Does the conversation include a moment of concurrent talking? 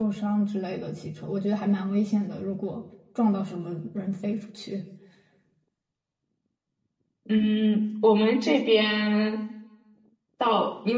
No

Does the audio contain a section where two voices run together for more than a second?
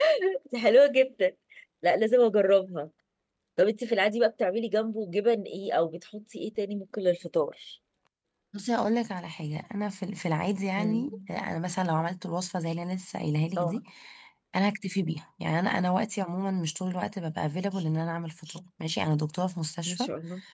No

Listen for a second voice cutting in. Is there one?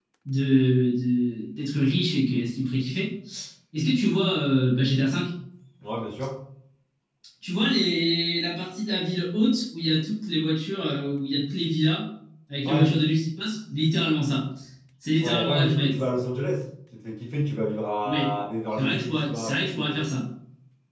Yes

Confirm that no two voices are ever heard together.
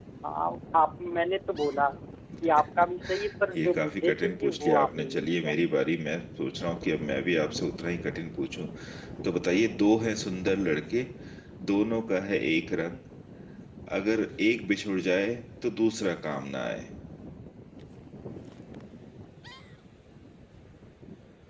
No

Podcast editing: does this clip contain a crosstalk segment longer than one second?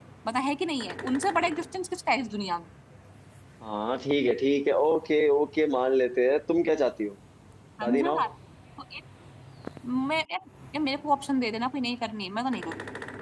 No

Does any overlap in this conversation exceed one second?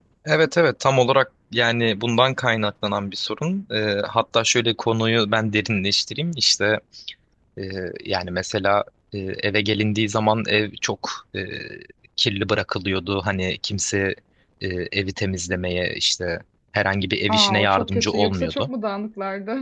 Yes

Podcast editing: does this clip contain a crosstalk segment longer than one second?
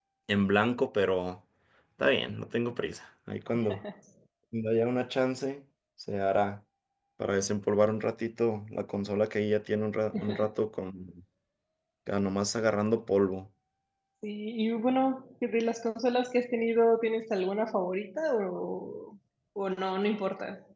No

